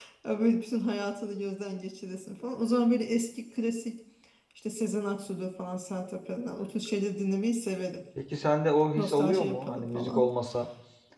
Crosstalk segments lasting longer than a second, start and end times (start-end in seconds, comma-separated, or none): 8.9-10.3